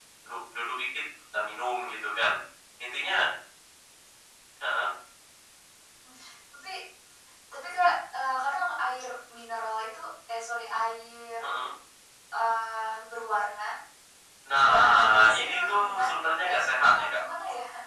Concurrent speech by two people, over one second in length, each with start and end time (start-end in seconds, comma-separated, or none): 14.6-17.2